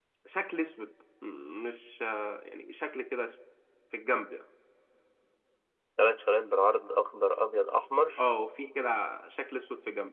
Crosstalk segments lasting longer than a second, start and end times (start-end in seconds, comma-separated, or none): none